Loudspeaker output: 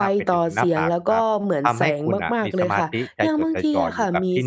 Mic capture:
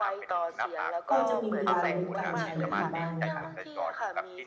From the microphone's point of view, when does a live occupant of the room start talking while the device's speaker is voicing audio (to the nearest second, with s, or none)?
1 s